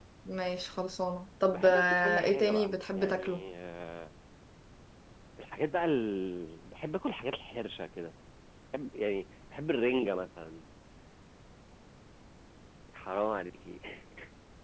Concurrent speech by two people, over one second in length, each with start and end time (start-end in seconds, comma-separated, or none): 1.5-3.2